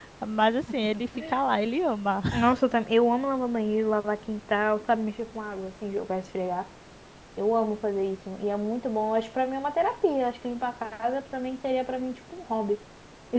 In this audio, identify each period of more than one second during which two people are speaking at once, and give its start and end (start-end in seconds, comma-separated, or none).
none